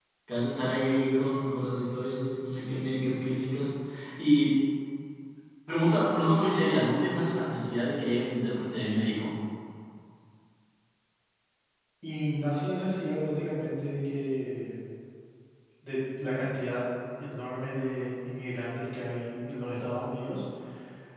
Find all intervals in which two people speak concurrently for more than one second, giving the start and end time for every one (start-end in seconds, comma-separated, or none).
none